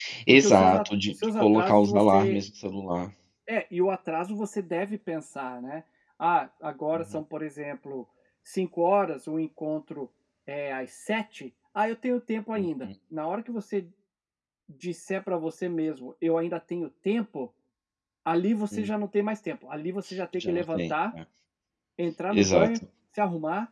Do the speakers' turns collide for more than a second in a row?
Yes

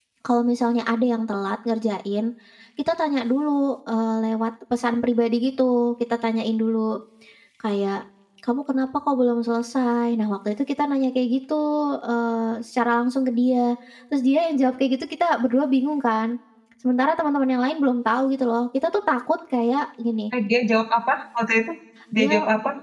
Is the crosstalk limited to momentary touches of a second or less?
Yes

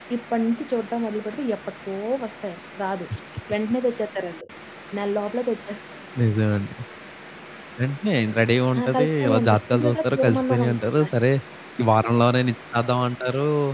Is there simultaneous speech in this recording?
Yes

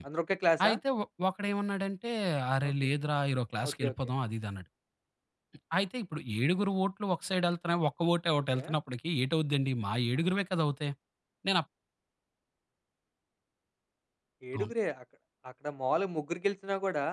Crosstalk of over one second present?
No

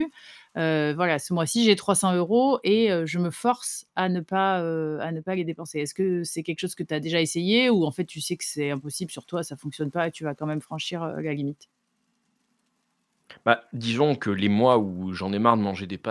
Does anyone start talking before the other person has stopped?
No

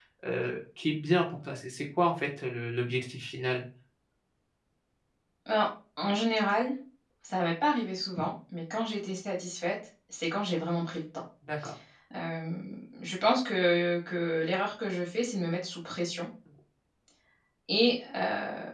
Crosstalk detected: No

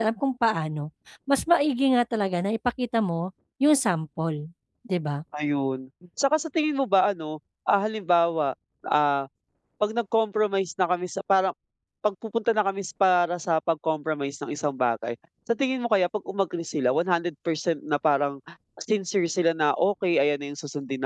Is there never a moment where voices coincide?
Yes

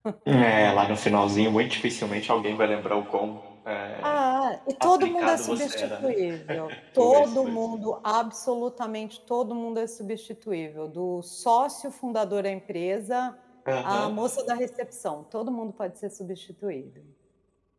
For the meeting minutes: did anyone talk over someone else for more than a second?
Yes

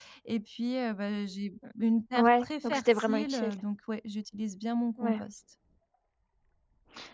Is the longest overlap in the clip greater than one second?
Yes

